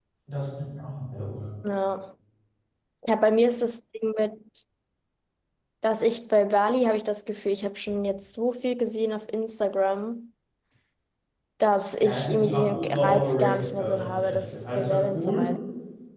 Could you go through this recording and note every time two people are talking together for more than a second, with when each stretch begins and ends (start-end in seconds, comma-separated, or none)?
12.0-15.5